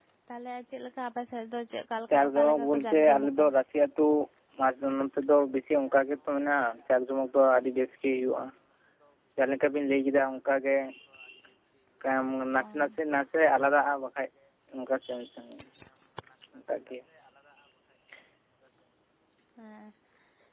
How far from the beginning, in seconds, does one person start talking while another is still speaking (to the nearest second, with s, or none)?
2 s